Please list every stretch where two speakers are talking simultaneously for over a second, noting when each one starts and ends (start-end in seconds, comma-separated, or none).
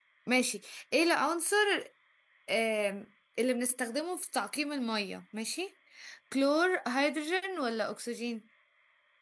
none